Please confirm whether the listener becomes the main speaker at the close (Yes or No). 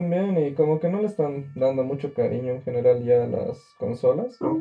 Yes